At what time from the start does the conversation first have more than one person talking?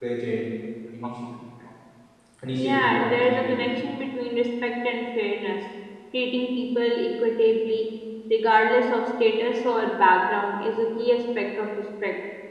2.5 s

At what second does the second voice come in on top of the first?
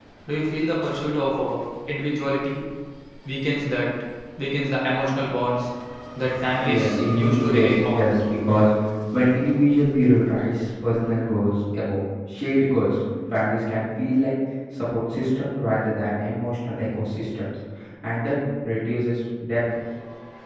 6.6 s

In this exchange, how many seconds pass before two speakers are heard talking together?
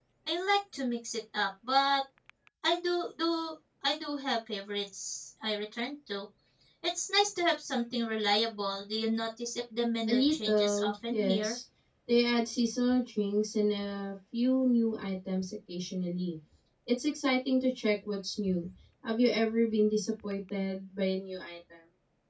10.1 s

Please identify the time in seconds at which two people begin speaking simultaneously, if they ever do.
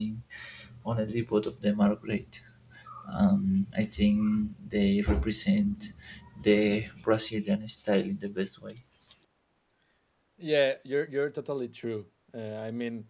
none

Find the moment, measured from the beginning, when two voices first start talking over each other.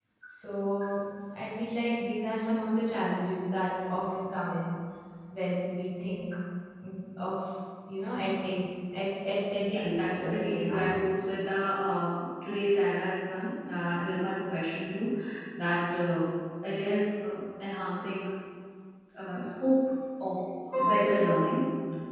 9.7 s

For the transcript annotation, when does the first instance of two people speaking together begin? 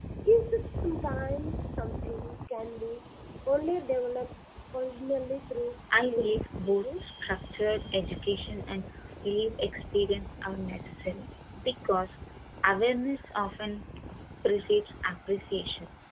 5.9 s

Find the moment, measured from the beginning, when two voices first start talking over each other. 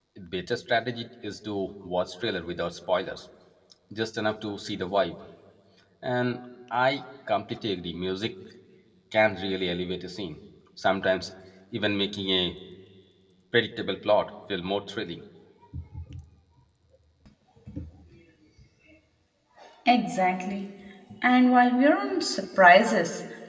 none

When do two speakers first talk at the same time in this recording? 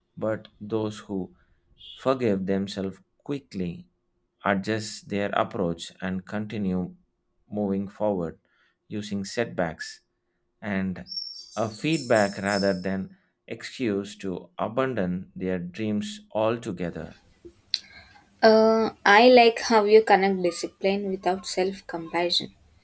none

